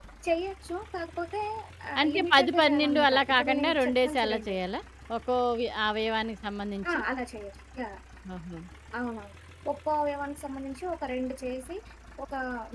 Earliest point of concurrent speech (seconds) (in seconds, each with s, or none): 2.0 s